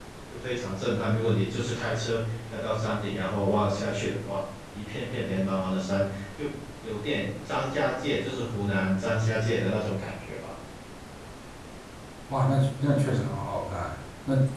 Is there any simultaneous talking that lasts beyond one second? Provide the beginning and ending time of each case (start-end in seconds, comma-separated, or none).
none